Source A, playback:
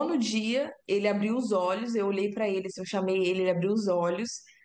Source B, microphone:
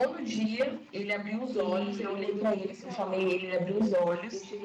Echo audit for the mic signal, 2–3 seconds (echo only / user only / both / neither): both